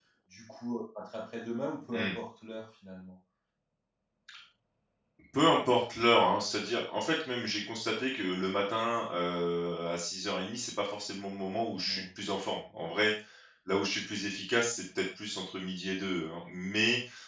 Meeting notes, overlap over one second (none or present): none